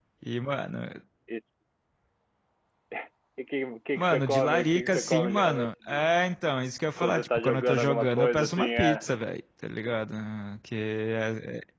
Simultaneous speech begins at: 4.0 s

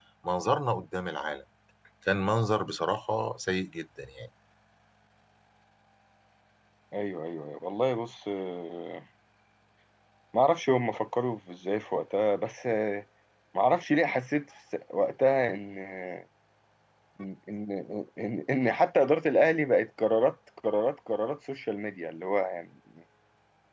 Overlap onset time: none

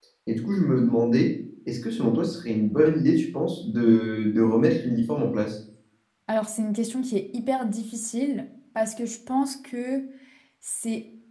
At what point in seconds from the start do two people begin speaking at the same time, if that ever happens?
none

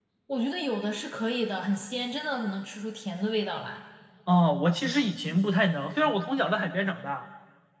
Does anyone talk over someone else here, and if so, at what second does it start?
none

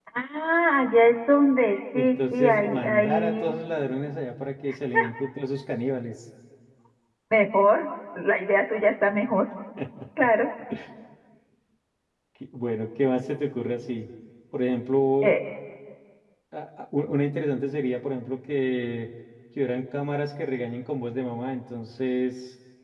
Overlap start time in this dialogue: 1.9 s

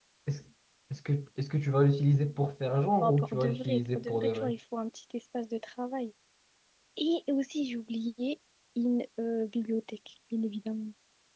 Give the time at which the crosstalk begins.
3.0 s

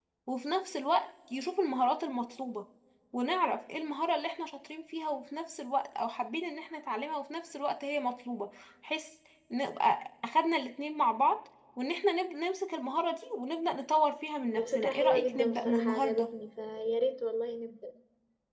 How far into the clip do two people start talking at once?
14.6 s

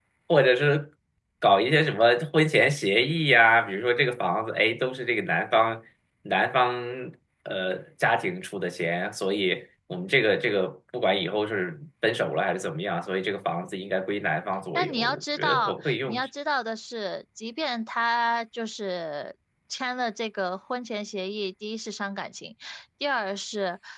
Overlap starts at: 14.8 s

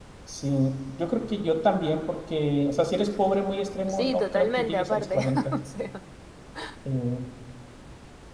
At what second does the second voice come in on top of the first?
3.9 s

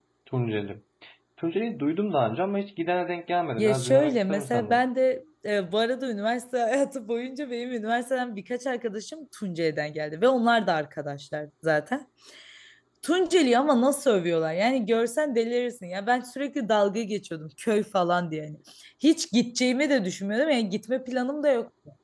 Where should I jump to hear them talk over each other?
3.6 s

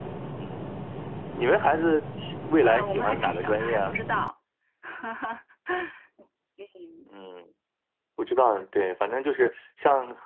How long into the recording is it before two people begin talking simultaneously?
2.6 s

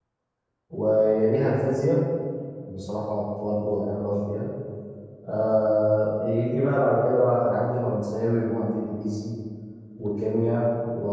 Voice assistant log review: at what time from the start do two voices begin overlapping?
none

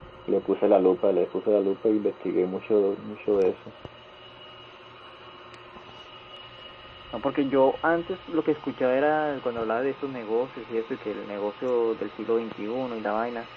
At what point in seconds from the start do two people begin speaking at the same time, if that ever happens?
none

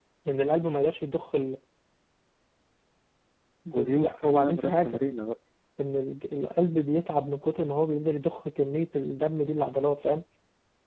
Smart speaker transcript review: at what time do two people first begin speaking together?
3.7 s

